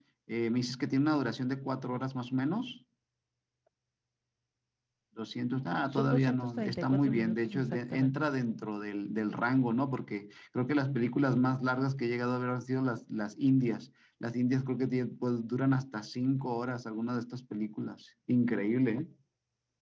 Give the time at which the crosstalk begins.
5.9 s

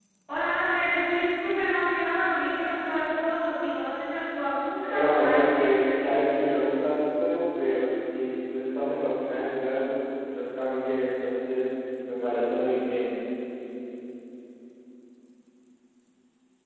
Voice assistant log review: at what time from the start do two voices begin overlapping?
4.9 s

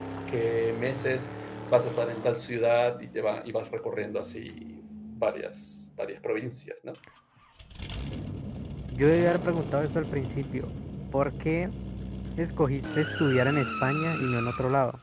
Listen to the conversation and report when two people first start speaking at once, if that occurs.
none

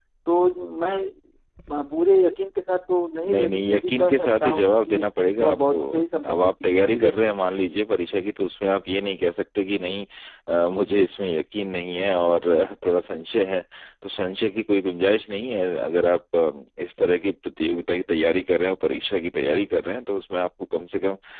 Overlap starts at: 3.2 s

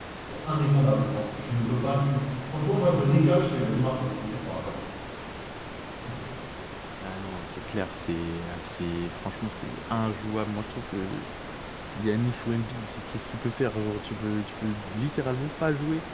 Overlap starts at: none

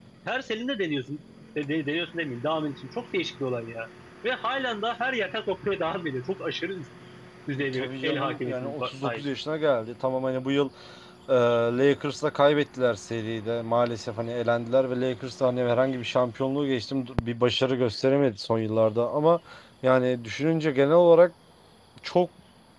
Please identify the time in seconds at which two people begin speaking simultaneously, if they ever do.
7.7 s

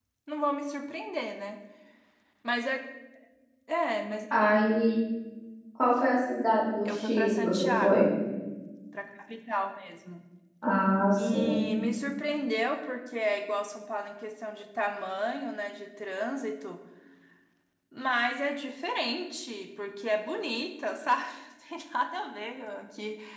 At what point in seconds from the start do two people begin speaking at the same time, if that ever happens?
6.8 s

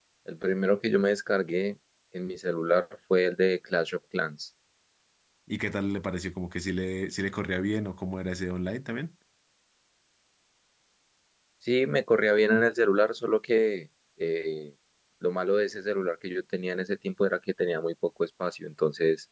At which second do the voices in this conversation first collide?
none

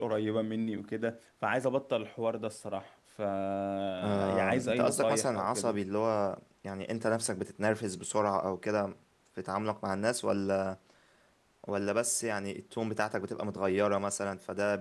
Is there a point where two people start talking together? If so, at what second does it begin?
4.0 s

